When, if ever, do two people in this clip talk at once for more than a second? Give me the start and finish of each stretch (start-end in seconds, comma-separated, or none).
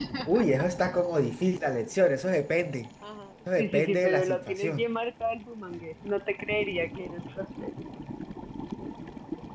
3.6-4.9